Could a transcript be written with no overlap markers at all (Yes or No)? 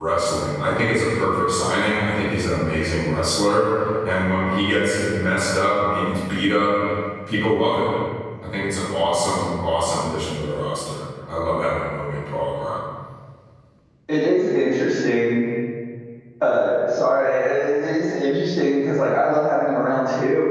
Yes